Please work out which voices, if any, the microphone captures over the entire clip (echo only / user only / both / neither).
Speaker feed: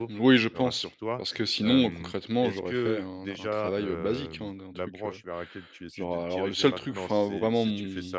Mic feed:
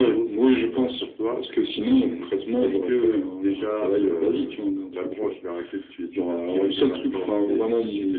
echo only